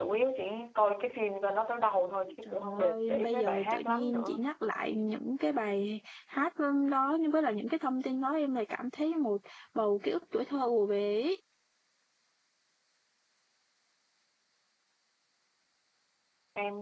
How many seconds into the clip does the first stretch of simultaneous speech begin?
2.3 s

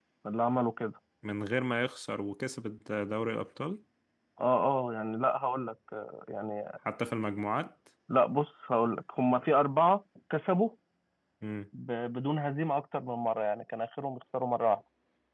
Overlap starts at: none

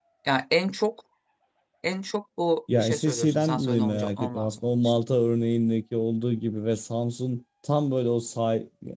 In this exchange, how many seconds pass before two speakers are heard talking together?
2.7 s

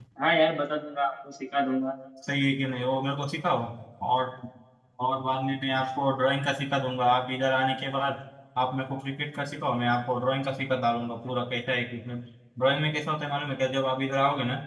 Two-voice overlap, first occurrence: none

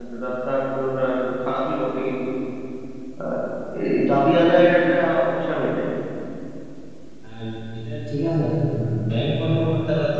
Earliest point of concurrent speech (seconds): none

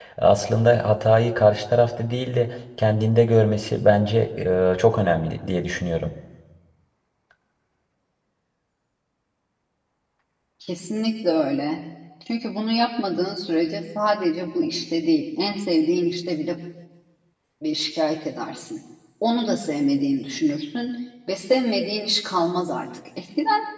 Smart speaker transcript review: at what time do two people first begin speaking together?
none

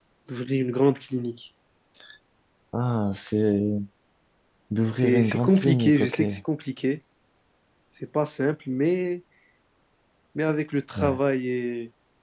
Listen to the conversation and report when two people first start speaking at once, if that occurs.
5.0 s

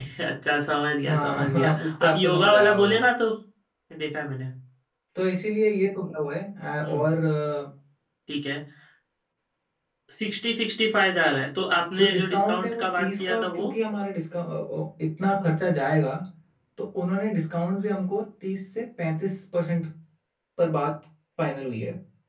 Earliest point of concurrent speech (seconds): 1.1 s

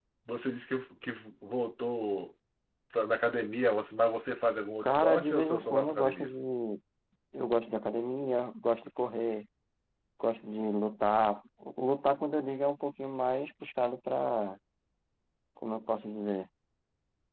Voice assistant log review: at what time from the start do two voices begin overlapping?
4.8 s

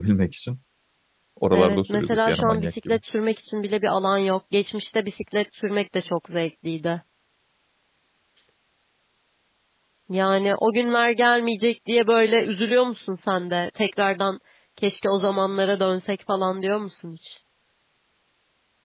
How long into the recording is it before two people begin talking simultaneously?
1.5 s

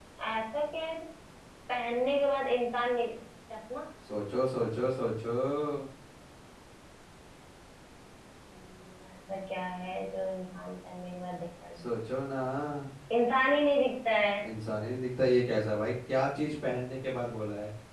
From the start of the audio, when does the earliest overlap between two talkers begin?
none

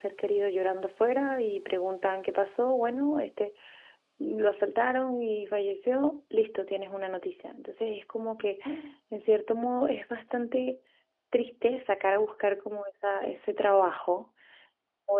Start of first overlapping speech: none

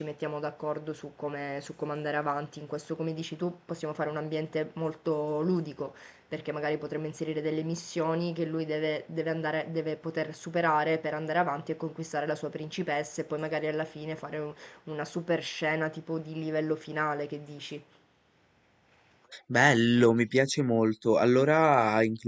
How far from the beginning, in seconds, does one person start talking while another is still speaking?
none

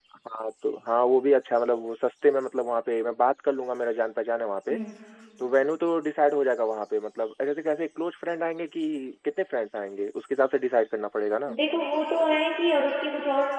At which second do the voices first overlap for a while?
none

